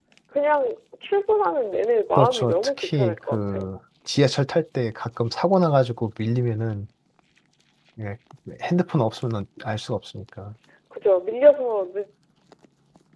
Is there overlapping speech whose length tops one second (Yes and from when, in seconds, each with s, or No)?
Yes, from 2.2 s